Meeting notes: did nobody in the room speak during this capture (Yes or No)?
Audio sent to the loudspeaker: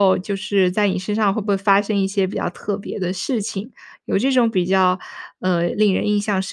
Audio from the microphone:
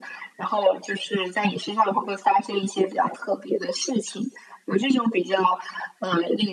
Yes